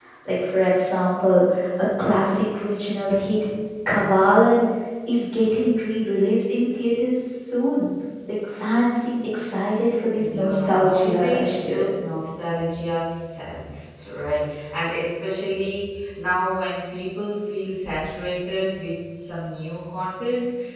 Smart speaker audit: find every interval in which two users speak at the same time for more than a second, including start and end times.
10.2-11.9

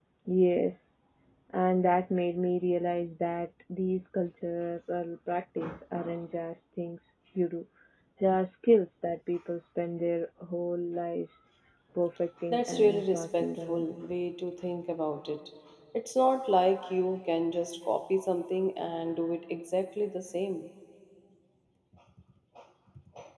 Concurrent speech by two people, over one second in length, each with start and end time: 12.5-13.8

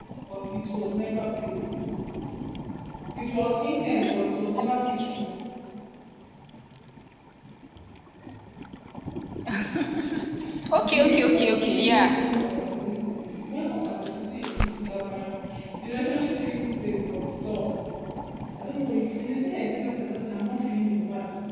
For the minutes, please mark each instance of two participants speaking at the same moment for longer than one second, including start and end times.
10.8-12.1

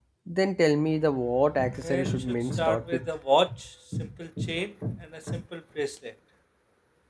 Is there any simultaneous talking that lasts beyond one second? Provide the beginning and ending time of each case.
1.8-3.1

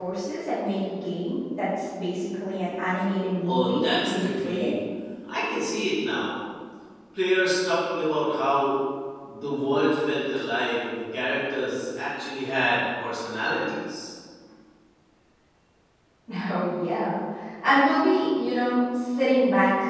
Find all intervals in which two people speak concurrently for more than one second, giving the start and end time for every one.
3.4-4.7

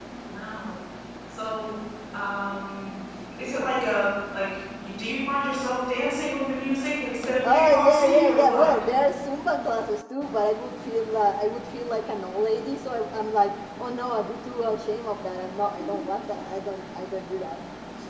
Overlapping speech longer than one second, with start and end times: 7.4-8.8

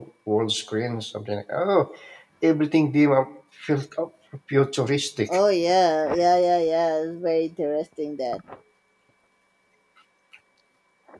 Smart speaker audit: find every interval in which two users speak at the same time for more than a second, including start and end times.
none

